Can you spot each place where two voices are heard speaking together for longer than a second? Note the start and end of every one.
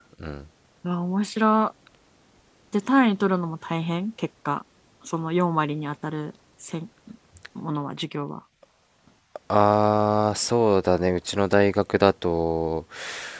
none

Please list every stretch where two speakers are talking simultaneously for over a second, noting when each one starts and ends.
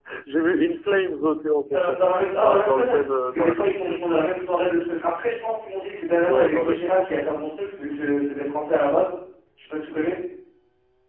2.4-4.0

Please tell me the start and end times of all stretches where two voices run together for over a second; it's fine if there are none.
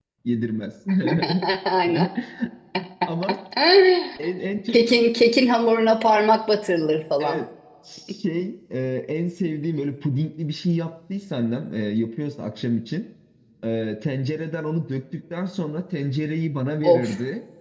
none

